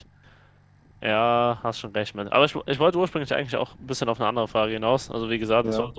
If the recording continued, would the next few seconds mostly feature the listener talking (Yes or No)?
No